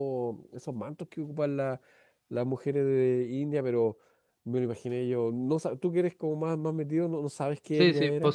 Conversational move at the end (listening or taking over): taking over